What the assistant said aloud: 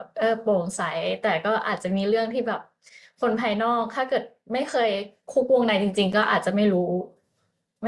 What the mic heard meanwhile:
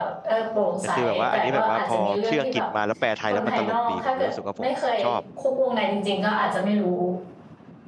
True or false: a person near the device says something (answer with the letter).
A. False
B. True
B